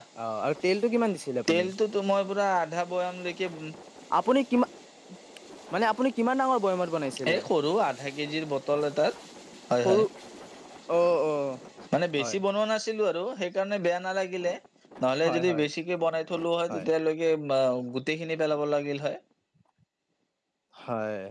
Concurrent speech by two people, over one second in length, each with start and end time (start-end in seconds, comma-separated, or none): none